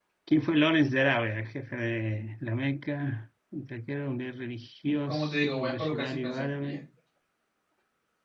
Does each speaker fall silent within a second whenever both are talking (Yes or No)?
No